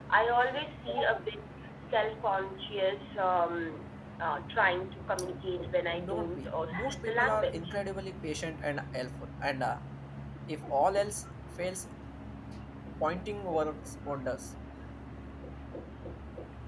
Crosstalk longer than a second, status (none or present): present